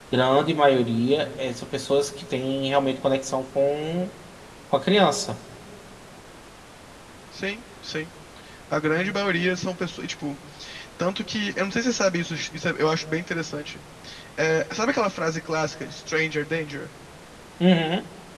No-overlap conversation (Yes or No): Yes